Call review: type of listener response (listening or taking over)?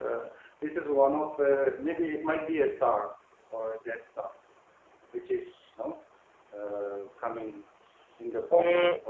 taking over